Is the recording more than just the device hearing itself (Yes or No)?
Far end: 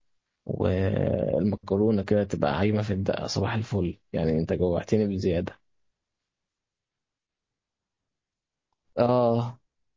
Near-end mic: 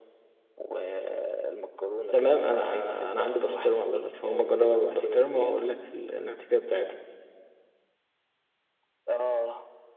Yes